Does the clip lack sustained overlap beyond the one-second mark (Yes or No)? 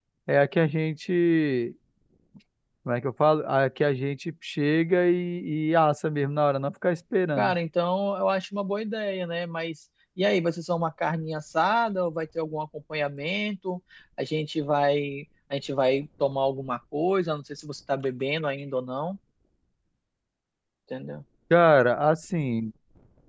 Yes